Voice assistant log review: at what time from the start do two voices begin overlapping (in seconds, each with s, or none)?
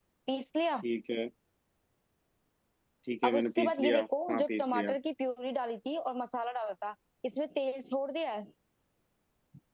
3.2 s